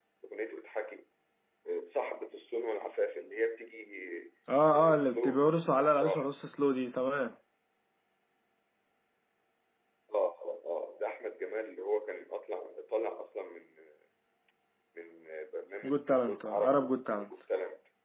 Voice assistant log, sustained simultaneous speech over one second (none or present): present